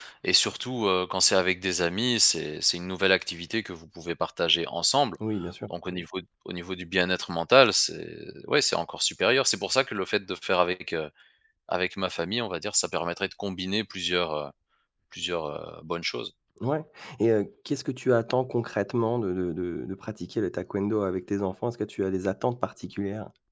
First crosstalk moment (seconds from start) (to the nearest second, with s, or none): none